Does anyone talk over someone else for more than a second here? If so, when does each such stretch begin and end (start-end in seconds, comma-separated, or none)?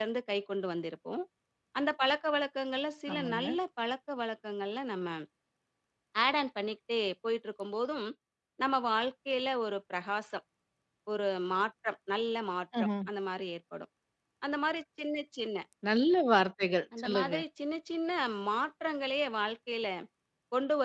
none